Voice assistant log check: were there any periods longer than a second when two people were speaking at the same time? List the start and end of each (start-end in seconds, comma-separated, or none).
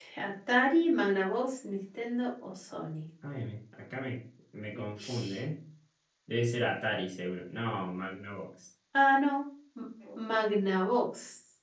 none